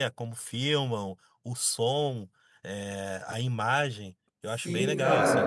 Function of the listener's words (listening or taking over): taking over